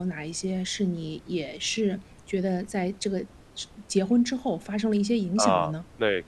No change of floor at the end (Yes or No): No